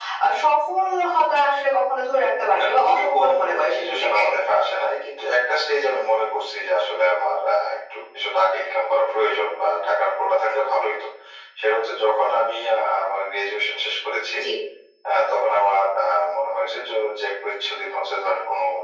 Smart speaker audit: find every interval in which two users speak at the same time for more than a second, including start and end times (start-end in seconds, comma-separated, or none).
2.6-4.2